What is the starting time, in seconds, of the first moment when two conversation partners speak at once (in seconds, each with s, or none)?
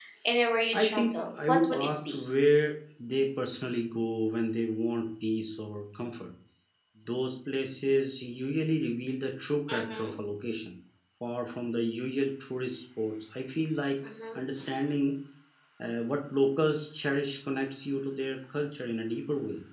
0.7 s